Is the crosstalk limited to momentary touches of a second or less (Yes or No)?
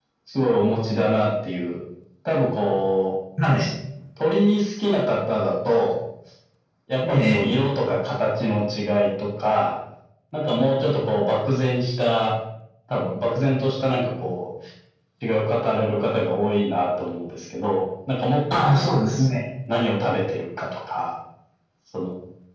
Yes